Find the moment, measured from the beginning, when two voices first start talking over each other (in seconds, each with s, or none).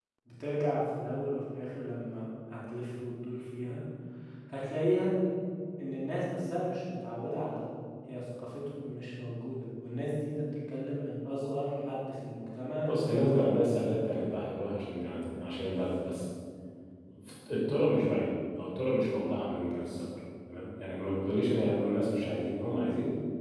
12.9 s